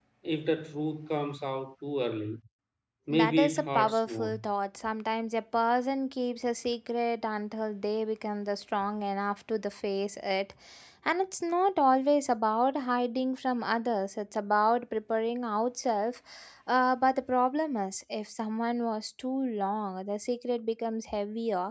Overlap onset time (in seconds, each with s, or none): 3.1 s